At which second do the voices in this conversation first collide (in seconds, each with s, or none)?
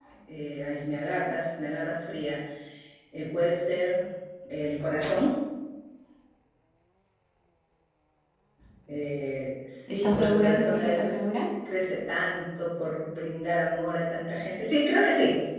9.9 s